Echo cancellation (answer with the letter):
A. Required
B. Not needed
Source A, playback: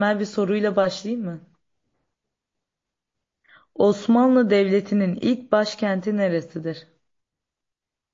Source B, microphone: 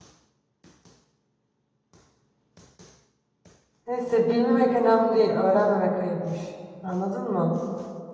B